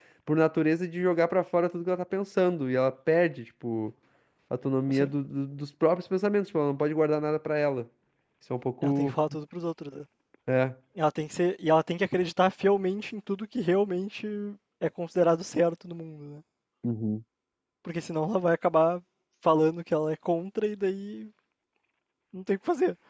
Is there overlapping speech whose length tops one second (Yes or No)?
No